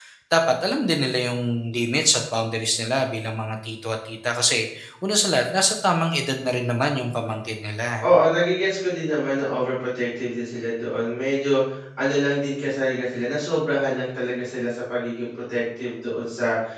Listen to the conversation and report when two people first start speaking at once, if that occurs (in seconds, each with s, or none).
none